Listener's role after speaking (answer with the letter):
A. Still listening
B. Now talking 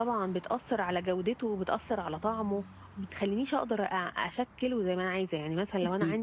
B